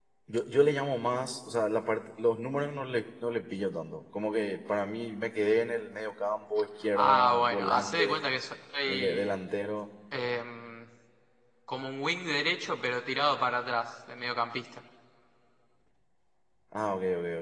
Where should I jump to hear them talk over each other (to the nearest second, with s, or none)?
7 s